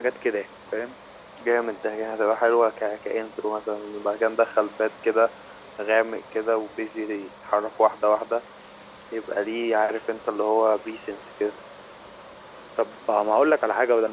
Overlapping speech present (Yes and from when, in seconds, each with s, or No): No